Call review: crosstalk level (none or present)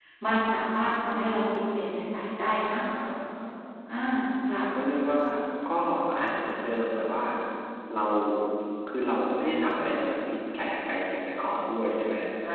none